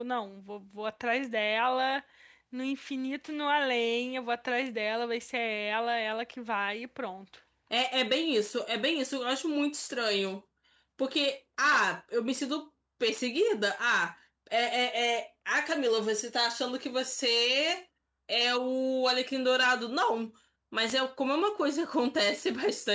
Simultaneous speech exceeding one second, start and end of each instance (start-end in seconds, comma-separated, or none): none